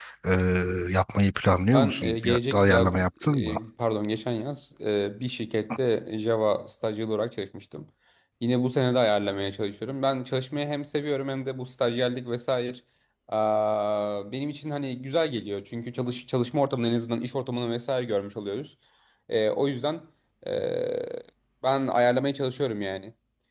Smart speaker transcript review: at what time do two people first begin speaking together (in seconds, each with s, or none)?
1.7 s